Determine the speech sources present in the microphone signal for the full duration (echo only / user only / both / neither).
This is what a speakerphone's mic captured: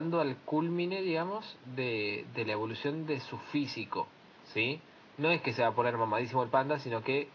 echo only